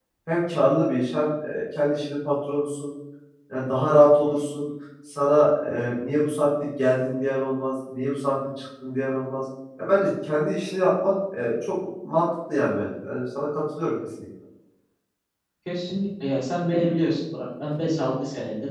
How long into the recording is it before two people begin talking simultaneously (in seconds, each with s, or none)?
none